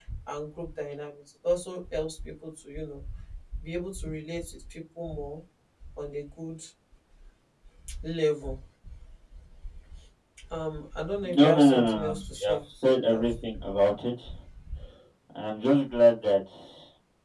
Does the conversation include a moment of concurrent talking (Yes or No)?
Yes